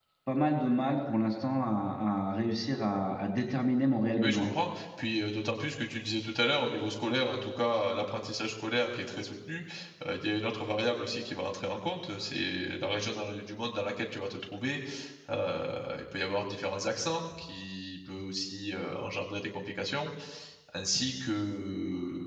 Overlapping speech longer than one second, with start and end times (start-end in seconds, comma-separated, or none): none